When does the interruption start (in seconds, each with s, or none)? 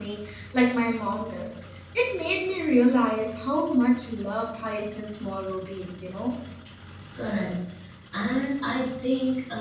none